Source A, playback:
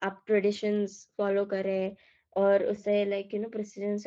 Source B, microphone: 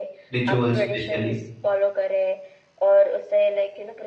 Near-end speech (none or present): present